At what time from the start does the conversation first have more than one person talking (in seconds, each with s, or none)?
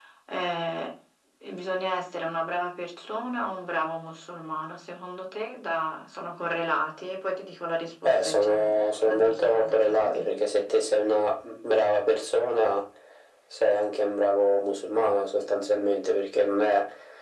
8.0 s